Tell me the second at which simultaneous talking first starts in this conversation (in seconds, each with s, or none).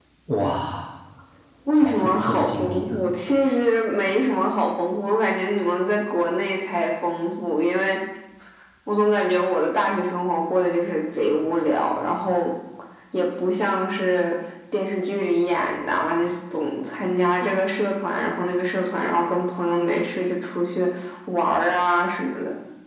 1.7 s